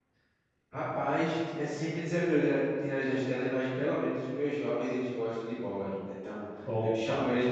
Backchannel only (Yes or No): Yes